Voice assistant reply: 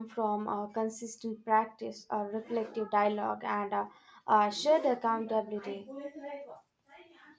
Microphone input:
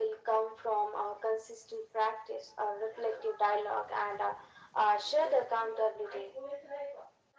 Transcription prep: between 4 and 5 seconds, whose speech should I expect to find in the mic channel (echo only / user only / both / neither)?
echo only